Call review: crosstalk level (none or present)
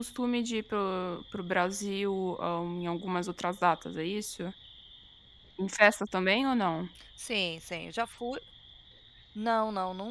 none